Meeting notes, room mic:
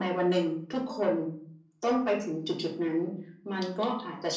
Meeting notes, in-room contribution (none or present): none